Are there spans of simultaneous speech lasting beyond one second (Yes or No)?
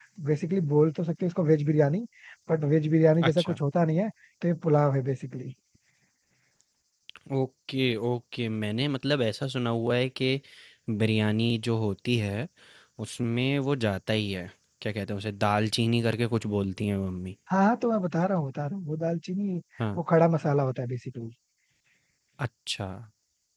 No